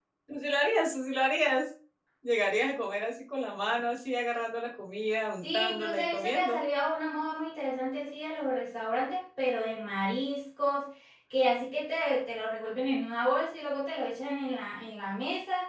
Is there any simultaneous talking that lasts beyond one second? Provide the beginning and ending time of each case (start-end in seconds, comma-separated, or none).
5.4-6.6